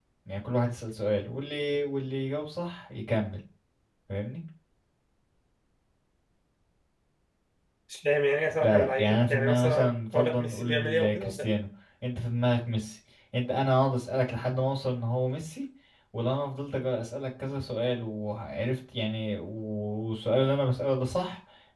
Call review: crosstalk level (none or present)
present